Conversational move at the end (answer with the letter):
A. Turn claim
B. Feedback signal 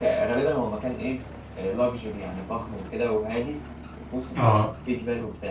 B